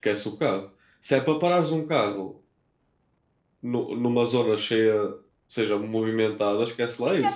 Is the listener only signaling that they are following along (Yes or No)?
No